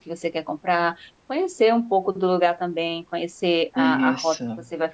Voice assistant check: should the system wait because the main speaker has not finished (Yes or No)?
Yes